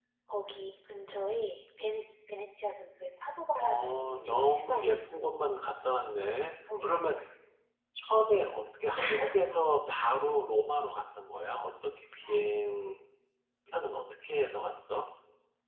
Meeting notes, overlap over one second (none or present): present